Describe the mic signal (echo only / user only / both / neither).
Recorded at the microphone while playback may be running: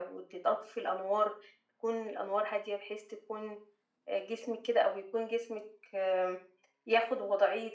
echo only